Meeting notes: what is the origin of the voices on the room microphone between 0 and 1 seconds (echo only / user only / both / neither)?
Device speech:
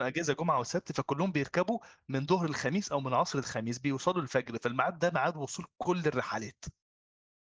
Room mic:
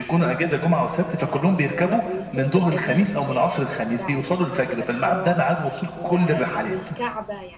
both